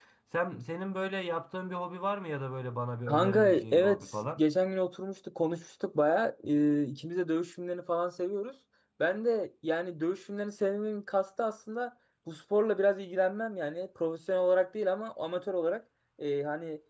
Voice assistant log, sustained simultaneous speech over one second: present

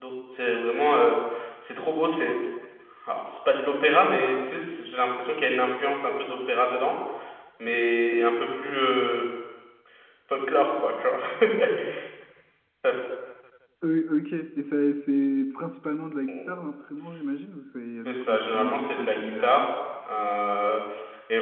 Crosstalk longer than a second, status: present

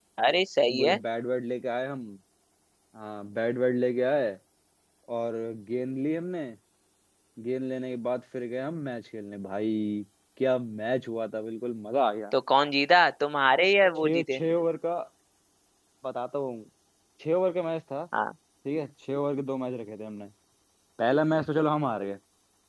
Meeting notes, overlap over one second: none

